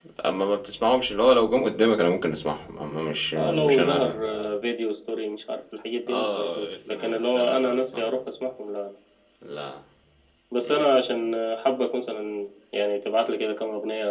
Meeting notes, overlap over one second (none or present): present